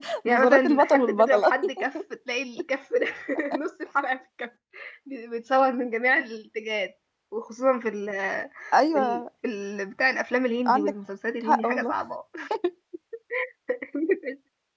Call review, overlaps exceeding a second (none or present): present